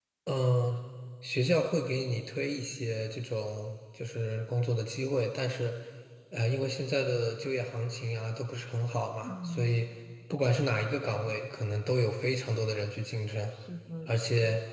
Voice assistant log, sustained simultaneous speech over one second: none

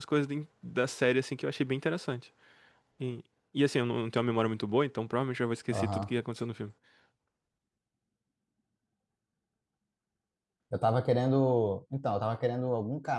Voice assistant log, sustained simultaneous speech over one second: none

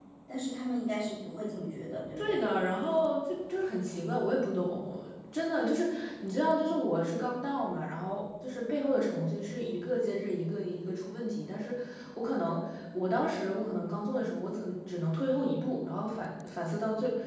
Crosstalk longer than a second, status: none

